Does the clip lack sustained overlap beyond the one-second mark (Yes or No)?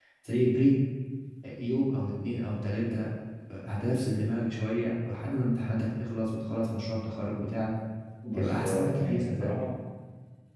No